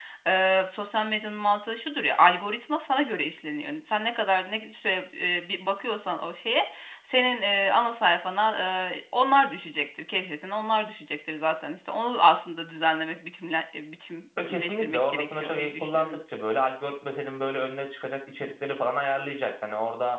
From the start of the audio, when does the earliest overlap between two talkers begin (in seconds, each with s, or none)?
14.4 s